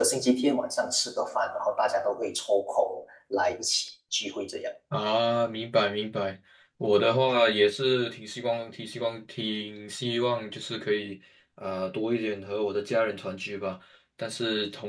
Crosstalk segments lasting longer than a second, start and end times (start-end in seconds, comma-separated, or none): none